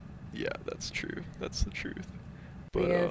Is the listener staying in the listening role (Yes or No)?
No